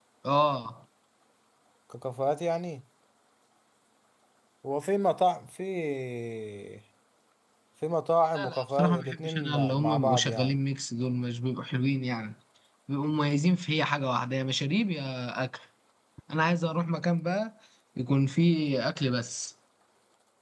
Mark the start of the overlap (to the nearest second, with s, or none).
8 s